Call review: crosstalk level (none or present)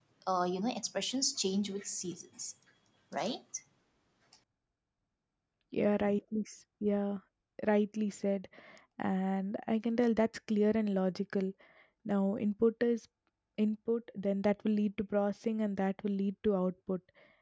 none